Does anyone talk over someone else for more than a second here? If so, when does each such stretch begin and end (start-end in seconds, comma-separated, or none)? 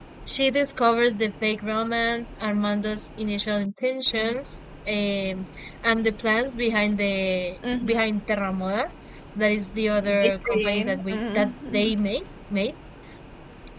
10.2-11.9